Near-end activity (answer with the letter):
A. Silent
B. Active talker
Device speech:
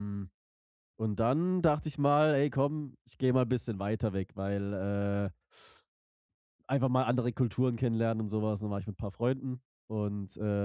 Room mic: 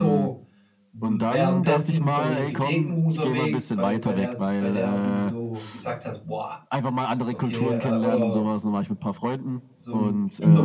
B